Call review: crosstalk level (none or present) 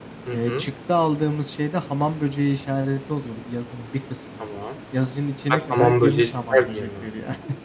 present